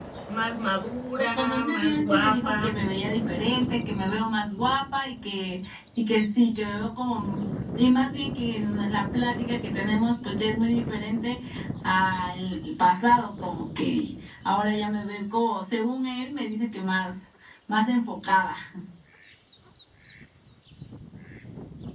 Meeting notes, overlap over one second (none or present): present